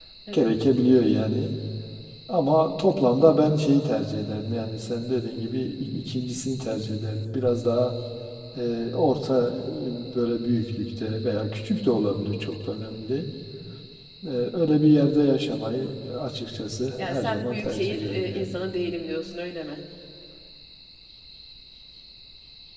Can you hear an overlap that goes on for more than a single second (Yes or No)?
Yes